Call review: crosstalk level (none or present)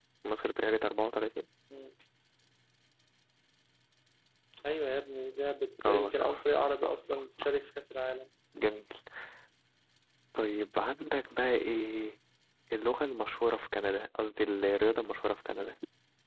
present